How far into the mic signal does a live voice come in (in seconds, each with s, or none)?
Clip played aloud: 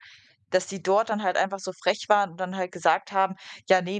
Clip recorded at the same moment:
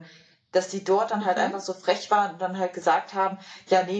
1.2 s